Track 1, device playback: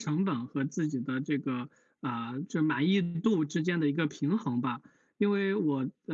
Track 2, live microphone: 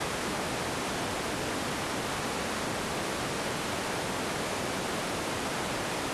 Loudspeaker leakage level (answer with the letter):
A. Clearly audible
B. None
B